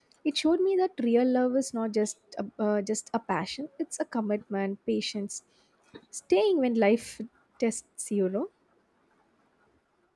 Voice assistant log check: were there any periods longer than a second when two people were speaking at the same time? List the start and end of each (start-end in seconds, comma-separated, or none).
none